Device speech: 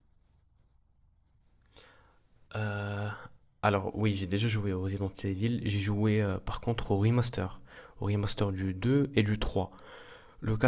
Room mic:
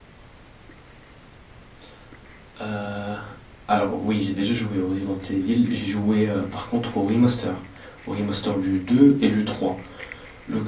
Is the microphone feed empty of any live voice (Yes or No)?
Yes